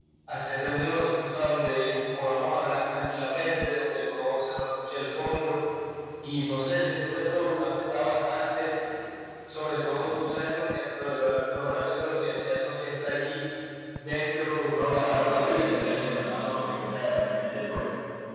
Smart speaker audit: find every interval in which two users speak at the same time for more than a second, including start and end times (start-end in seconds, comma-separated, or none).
14.9-16.3